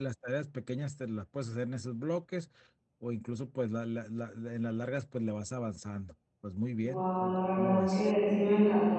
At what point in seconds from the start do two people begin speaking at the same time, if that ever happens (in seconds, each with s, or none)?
6.8 s